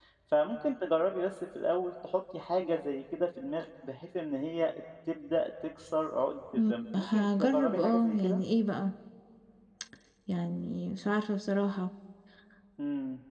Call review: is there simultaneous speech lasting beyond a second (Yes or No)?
Yes